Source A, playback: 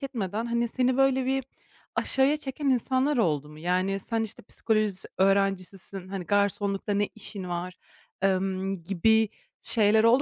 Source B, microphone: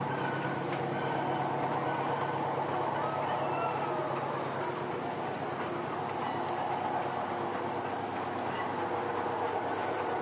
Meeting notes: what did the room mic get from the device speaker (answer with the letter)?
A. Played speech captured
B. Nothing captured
B